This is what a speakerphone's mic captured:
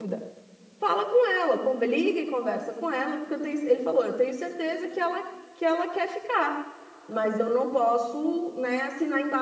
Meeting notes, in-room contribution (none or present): present